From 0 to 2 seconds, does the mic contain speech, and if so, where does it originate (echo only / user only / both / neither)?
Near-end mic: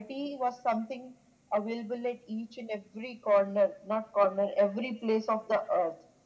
echo only